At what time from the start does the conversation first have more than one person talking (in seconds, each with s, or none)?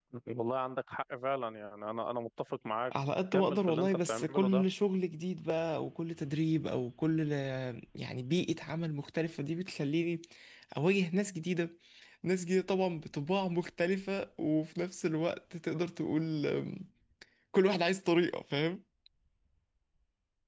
3.3 s